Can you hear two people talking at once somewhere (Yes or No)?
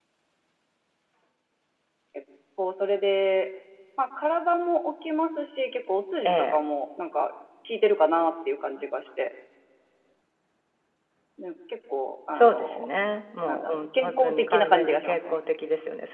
Yes